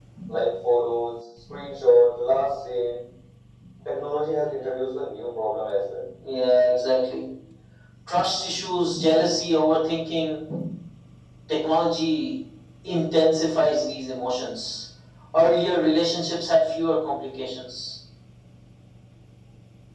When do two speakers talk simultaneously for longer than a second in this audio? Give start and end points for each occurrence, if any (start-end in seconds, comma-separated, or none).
none